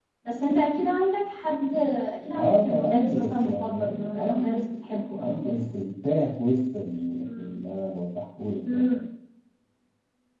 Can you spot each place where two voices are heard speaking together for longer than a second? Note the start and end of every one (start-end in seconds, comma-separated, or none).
2.4-4.6